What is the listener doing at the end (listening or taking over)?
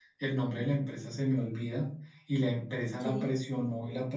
listening